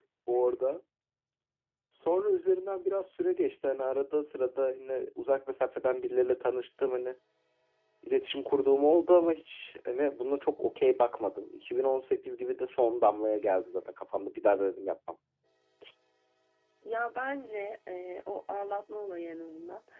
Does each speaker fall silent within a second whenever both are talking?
Yes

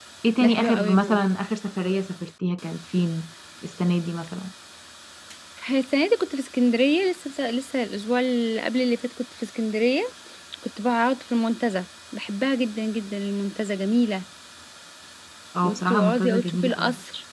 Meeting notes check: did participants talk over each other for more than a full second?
Yes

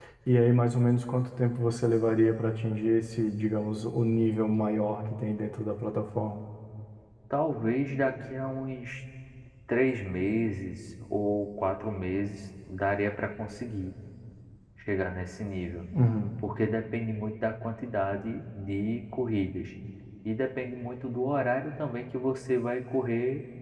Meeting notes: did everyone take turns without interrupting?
Yes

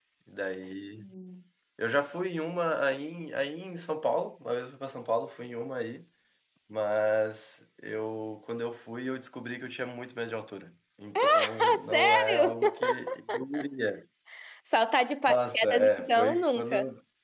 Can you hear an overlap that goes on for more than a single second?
Yes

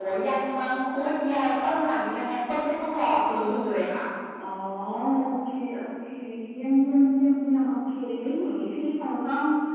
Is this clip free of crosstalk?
Yes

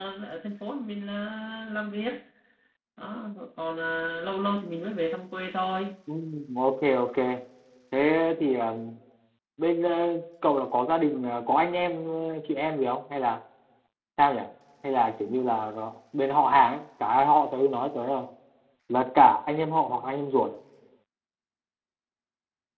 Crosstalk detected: No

